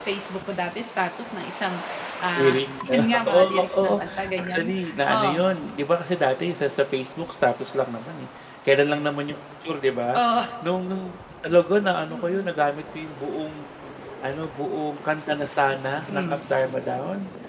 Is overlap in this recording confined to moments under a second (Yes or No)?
No